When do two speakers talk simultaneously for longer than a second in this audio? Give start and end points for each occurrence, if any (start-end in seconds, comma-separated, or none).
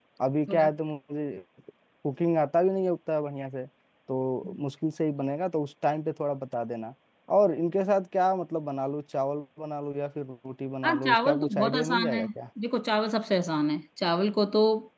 10.8-12.3